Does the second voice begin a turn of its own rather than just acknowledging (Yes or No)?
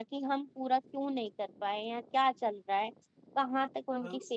No